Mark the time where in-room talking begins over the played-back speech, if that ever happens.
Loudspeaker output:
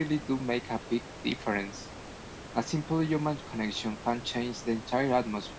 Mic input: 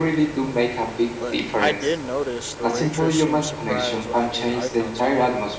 1 s

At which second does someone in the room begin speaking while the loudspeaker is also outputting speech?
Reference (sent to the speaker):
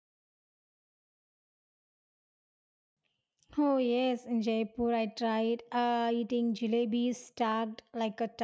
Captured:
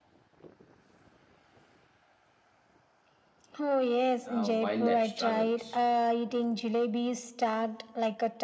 4 s

